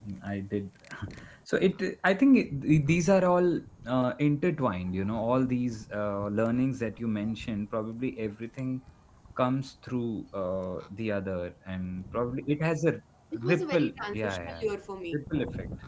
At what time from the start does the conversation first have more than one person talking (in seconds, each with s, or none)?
13.3 s